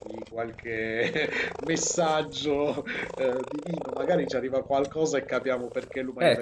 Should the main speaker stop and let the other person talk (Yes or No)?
Yes